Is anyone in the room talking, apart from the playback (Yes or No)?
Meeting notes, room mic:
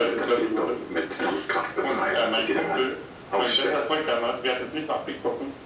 No